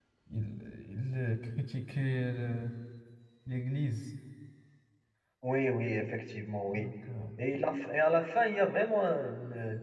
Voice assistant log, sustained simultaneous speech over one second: none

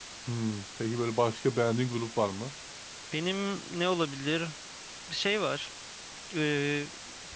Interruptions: none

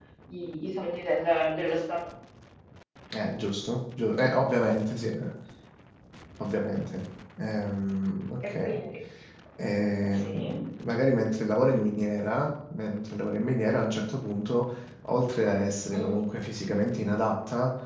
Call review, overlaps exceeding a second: none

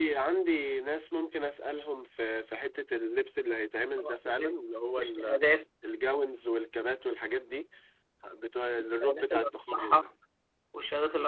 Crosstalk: present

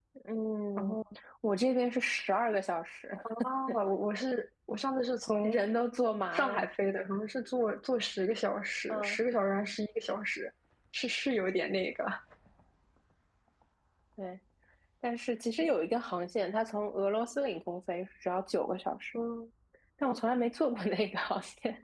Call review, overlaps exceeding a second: none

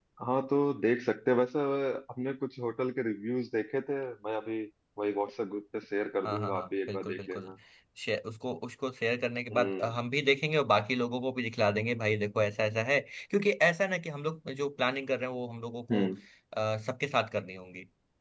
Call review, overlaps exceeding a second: present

